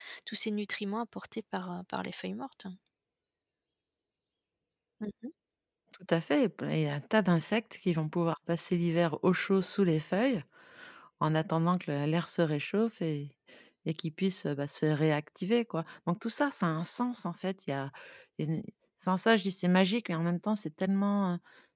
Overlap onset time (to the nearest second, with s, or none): none